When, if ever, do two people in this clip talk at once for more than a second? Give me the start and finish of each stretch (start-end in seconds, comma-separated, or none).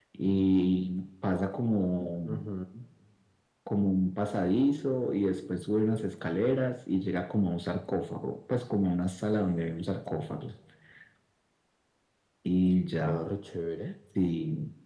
none